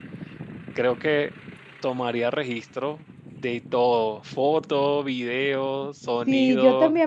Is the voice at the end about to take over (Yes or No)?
Yes